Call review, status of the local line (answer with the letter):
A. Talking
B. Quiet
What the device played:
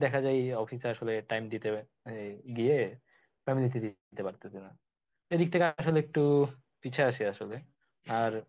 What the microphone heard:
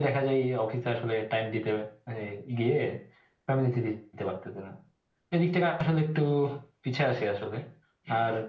B